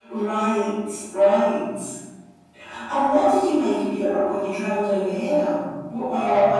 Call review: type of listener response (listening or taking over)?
taking over